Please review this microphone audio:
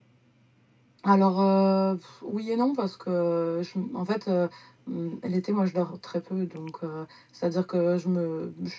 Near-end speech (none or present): present